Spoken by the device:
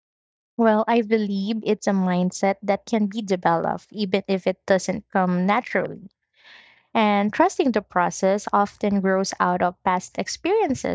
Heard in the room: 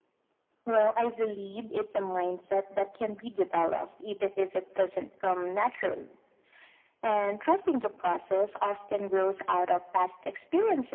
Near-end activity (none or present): none